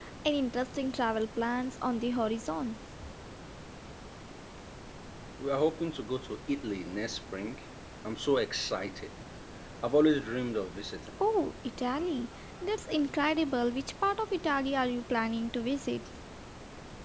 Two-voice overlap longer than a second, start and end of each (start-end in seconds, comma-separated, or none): none